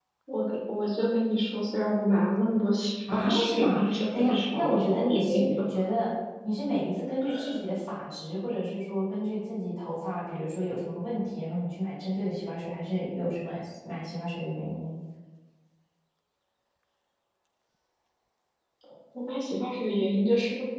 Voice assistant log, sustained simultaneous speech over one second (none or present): present